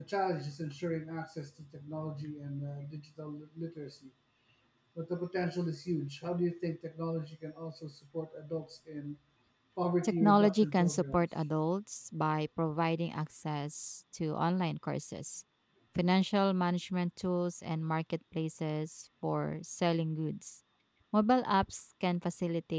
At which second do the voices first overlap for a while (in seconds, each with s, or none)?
10.0 s